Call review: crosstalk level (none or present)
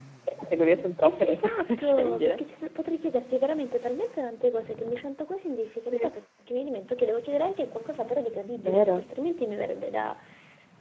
present